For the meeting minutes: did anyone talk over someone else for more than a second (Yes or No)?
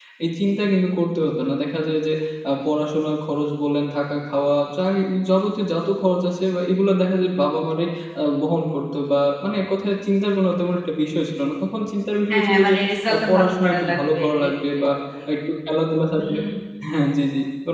Yes